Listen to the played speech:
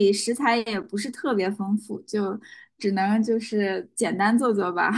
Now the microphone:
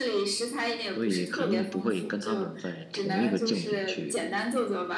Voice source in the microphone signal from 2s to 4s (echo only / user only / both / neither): both